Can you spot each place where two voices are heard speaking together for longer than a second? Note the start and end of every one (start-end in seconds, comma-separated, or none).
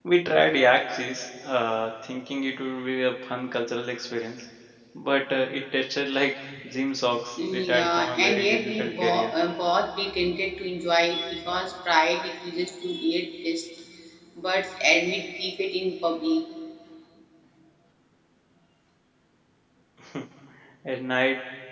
7.4-9.3